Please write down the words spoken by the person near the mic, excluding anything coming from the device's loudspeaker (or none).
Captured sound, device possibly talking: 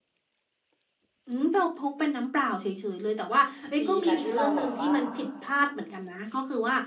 ดีนะที่เราแบบว่า